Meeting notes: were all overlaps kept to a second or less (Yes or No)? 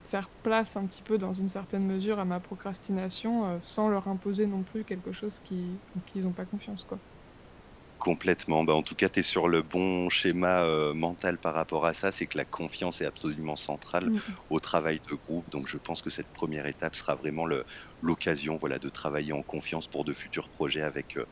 Yes